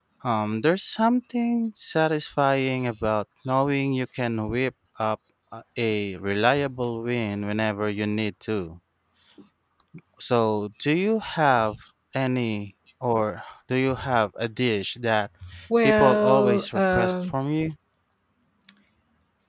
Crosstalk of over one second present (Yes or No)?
Yes